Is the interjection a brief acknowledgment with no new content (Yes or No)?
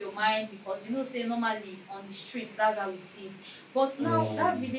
Yes